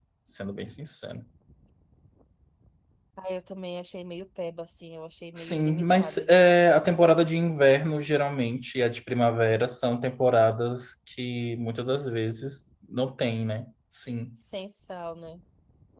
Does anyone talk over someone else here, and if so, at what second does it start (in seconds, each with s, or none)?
5.3 s